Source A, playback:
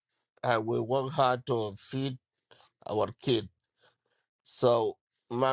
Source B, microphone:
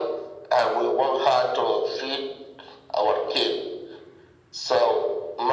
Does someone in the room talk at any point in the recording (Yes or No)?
No